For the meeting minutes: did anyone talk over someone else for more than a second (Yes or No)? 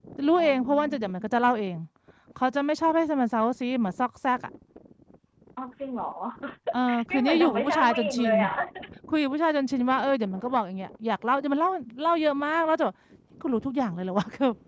Yes